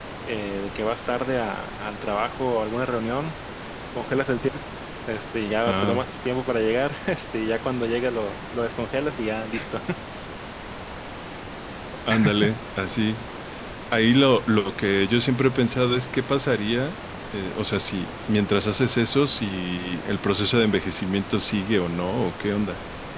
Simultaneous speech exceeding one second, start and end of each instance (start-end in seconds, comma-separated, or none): none